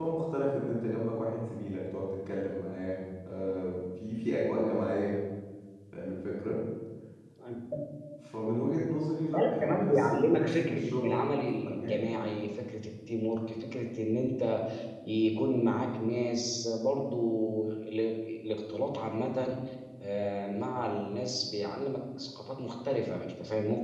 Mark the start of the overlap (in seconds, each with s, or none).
9.3 s